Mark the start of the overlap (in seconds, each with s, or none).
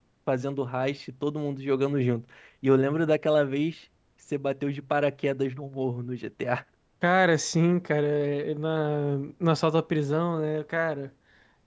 none